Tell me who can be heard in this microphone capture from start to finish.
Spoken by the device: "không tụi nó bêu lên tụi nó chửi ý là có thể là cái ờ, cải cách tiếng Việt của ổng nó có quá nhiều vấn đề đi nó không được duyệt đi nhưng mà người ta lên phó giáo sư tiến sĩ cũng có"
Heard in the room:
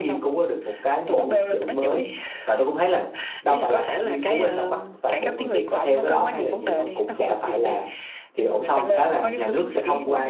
both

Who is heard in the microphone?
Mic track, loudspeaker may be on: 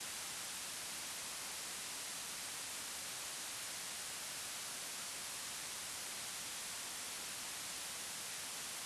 neither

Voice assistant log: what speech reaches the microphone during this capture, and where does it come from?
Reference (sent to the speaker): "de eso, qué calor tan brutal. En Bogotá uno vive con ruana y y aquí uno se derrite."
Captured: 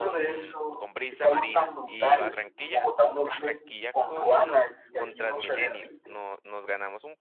both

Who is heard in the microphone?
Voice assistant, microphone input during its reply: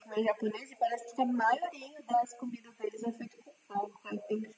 echo only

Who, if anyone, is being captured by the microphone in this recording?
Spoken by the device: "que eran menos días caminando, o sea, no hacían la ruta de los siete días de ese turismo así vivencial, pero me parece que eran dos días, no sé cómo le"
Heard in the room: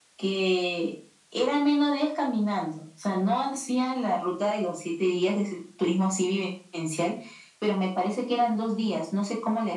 echo only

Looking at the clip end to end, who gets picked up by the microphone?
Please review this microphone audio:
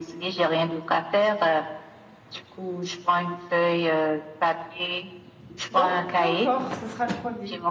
both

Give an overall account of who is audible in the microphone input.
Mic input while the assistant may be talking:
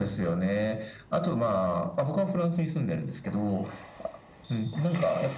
echo only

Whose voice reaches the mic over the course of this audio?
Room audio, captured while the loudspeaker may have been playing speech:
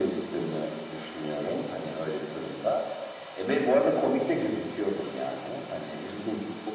echo only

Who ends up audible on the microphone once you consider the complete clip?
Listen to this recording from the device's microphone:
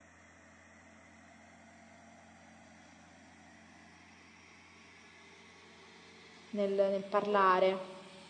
user only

